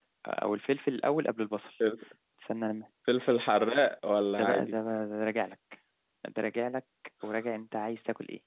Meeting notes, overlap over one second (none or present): none